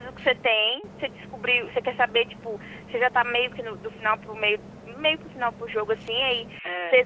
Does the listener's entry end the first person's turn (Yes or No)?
No